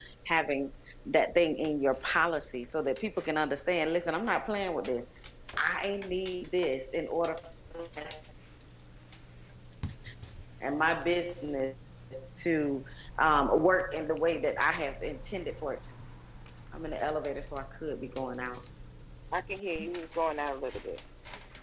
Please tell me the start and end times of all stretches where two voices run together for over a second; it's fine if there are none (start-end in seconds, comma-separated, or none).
none